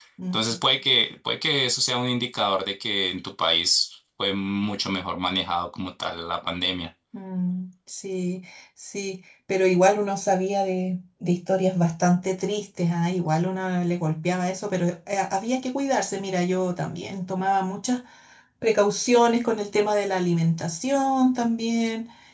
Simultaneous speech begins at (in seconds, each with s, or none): none